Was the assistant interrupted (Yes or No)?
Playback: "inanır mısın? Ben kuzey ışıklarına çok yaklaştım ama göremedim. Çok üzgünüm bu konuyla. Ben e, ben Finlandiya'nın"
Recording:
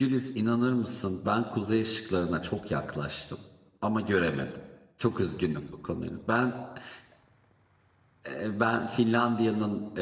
No